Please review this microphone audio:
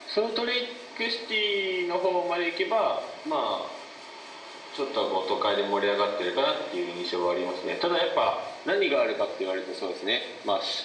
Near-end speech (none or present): none